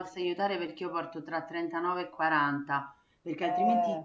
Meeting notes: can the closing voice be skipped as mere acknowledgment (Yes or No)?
Yes